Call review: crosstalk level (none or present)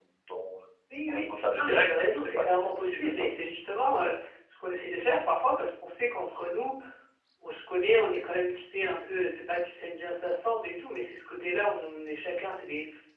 present